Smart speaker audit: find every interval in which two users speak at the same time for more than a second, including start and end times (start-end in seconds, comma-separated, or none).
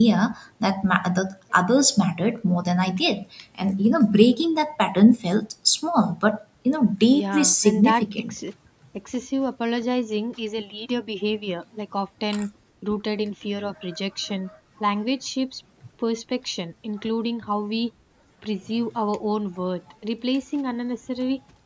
7.1-8.3